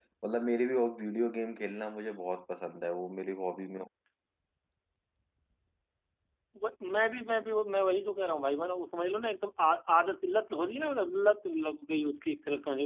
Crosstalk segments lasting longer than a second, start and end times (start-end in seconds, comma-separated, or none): none